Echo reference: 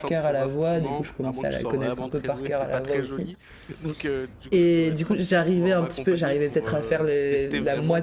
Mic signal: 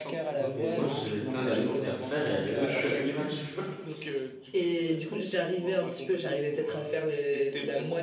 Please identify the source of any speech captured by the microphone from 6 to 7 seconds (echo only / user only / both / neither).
echo only